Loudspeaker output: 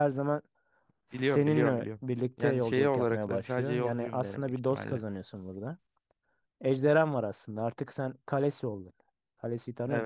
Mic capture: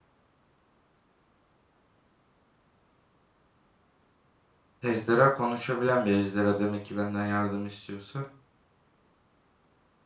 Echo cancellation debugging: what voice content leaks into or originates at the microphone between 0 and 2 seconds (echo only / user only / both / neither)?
neither